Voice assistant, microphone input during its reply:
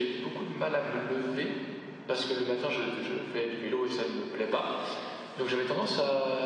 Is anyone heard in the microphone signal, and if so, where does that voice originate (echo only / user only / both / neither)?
echo only